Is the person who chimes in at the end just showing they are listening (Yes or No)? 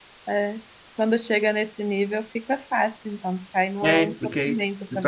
No